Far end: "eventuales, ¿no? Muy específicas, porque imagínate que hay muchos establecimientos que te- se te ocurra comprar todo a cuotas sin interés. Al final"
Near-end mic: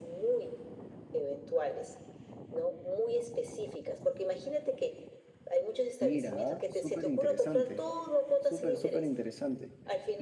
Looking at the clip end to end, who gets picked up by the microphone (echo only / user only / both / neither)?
both